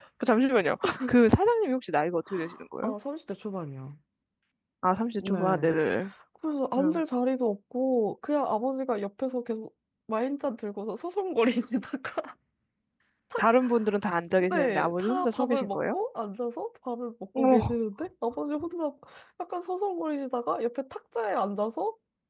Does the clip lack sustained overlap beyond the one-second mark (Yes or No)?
No